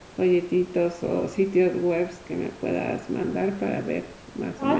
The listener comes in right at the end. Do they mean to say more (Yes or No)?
Yes